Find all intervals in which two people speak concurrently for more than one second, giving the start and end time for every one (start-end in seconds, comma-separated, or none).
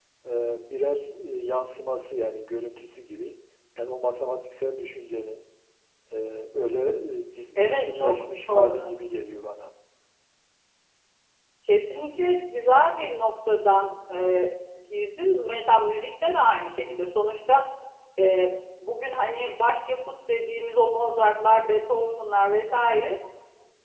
7.5-8.9